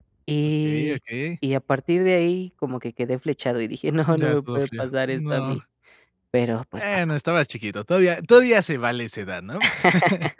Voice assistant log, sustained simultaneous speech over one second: present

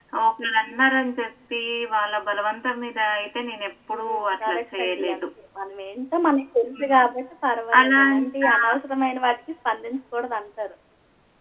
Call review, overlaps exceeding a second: present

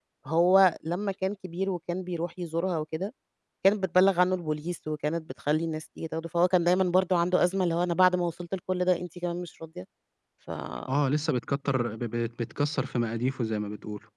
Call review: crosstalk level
none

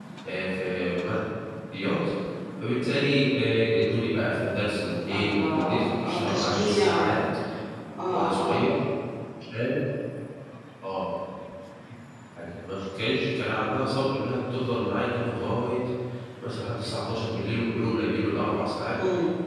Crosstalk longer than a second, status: present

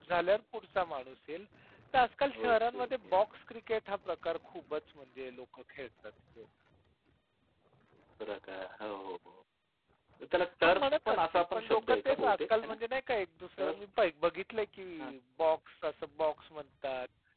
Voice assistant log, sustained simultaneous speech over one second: present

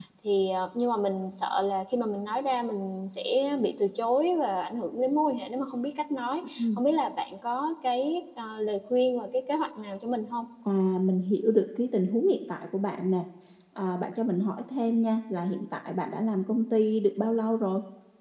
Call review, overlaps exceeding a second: none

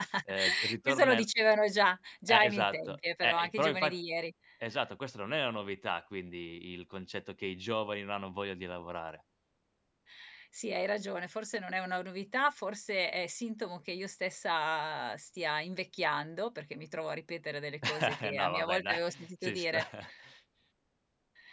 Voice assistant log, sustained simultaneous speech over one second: present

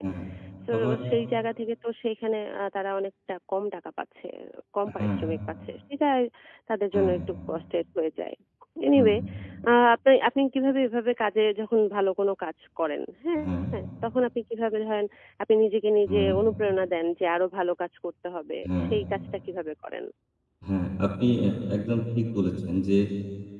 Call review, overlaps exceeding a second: none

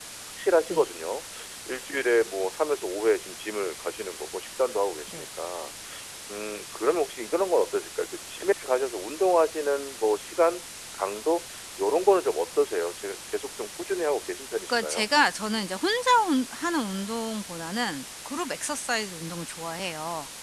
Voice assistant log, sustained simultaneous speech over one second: none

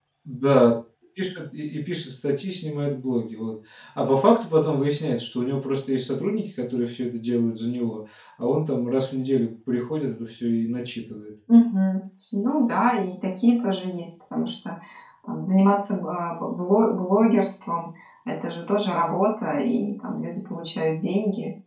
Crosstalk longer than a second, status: none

